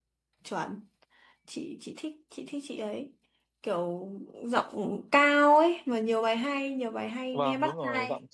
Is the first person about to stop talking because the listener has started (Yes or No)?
Yes